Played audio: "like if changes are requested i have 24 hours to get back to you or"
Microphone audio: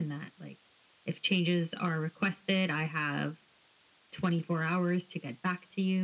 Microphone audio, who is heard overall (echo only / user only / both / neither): echo only